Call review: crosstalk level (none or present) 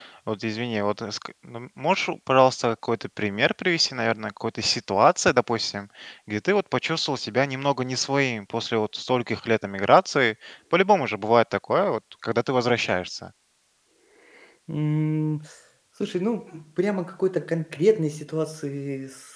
none